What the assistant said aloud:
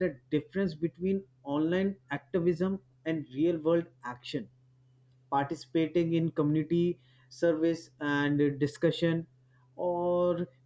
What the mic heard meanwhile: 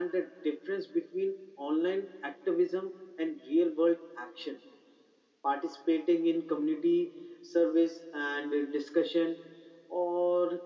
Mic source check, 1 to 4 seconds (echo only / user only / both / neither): echo only